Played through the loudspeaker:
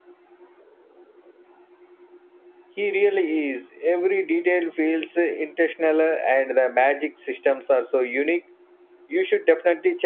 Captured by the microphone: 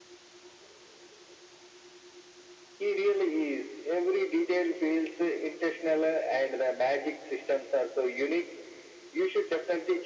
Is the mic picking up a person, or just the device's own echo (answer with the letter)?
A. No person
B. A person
A